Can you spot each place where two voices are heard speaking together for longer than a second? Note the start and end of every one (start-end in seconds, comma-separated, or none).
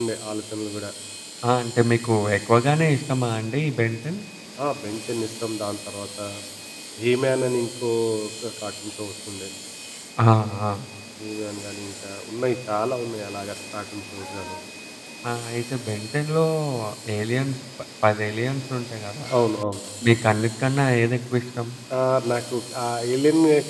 none